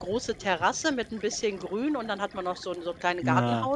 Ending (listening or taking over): listening